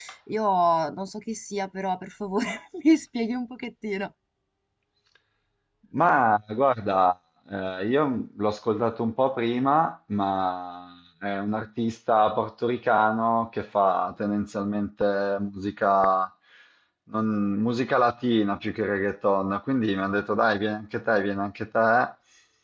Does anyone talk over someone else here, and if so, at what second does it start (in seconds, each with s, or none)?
none